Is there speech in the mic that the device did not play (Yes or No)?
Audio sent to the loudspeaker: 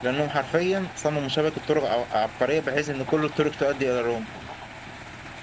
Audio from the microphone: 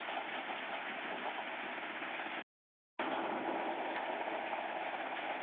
No